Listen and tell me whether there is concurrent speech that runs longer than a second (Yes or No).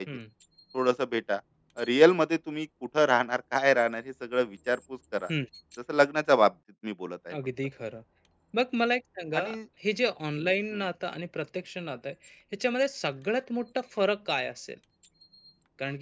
No